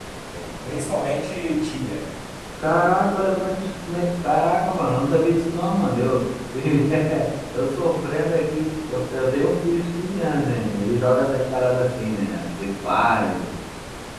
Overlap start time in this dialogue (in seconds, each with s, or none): none